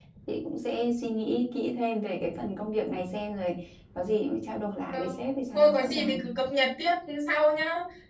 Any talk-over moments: Yes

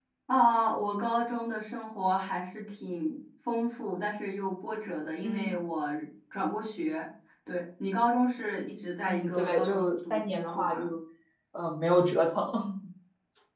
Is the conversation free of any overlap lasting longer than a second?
No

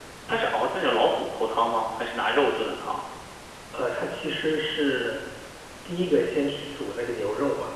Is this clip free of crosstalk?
Yes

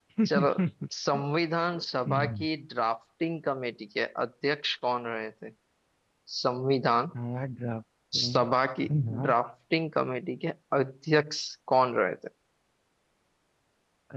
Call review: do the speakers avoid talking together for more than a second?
Yes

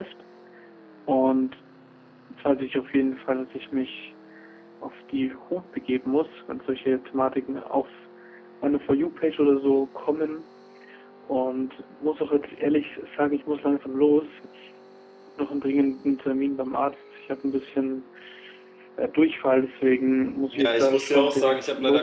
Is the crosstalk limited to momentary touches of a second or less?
No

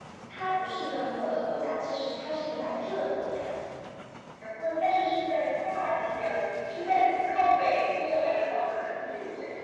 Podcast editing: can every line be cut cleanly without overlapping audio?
Yes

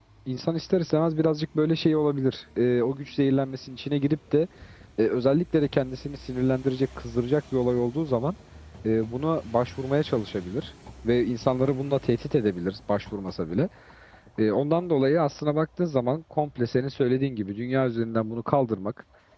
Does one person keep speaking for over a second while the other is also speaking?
No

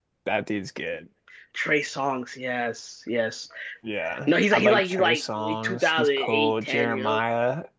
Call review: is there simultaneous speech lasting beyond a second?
Yes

